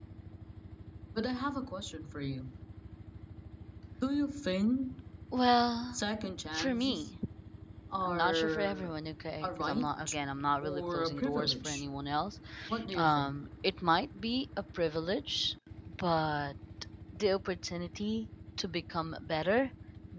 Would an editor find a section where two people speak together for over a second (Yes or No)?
Yes